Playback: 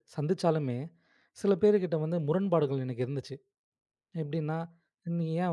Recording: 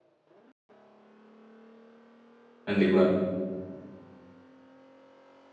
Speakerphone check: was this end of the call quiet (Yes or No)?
No